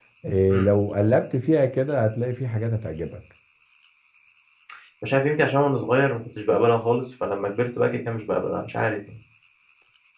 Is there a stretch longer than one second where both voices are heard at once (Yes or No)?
No